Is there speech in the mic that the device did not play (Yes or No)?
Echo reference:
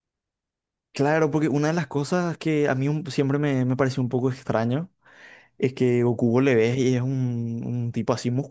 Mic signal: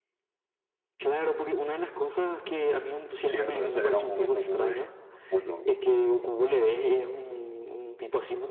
Yes